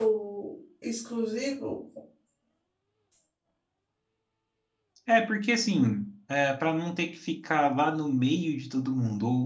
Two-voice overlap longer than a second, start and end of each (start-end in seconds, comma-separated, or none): none